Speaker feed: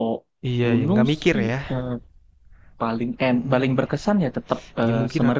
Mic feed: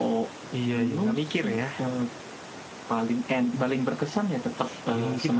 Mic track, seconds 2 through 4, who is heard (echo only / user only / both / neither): echo only